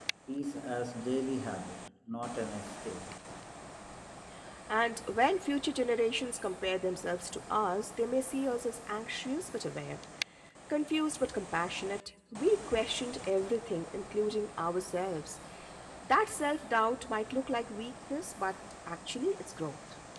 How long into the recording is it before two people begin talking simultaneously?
none

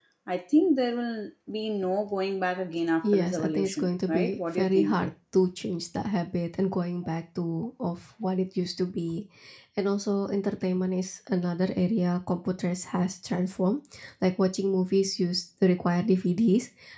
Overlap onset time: 3.0 s

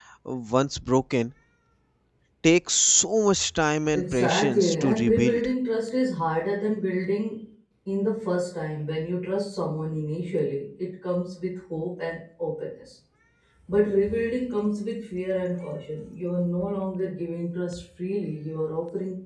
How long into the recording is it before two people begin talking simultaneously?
3.9 s

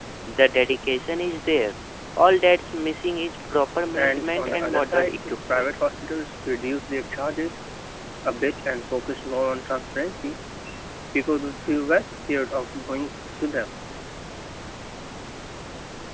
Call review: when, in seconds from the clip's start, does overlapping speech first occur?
4.0 s

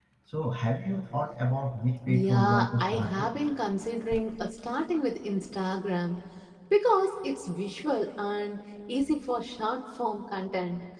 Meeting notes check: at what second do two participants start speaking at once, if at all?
2.1 s

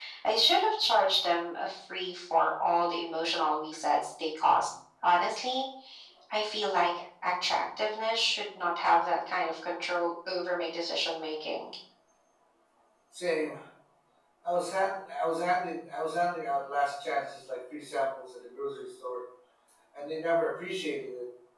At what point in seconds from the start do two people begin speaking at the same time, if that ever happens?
none

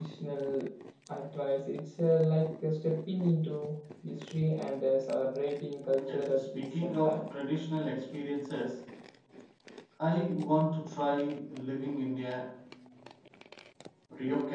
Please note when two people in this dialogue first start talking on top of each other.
6.0 s

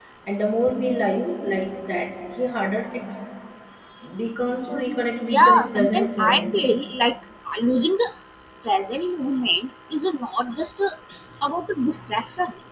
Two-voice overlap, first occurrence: 5.4 s

